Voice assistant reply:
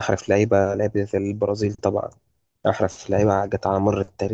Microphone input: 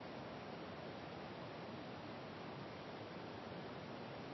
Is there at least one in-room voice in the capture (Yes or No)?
No